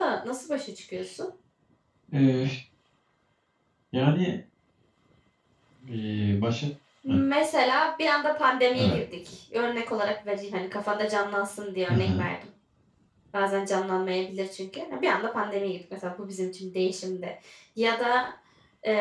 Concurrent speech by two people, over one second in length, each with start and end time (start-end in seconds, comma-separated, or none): none